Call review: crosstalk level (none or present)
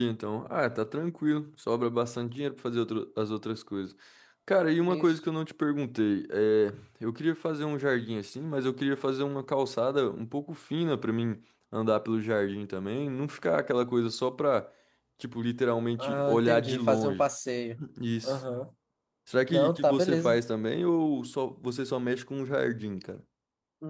present